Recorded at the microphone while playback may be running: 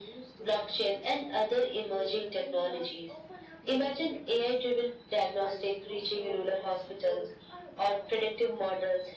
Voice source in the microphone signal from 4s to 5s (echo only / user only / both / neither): both